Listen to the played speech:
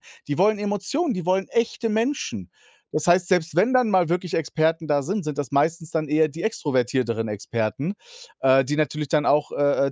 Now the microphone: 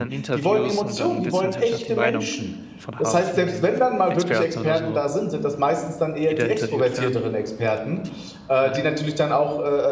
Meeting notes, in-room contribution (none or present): present